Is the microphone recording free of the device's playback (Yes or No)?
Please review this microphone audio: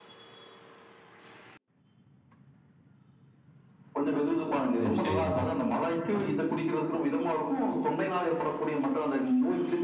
No